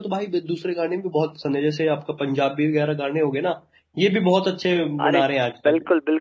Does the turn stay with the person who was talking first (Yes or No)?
No